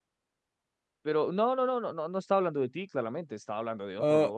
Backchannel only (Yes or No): No